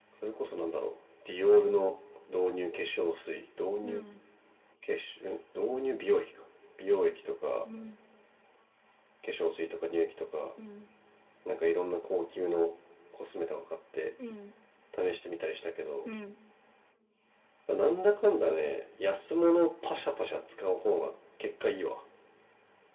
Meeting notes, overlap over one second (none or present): none